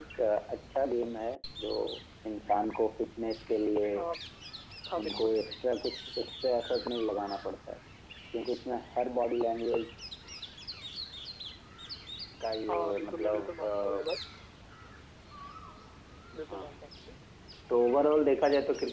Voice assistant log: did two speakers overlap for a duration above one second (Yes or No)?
Yes